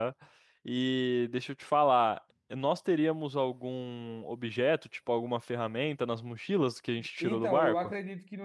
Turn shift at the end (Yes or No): Yes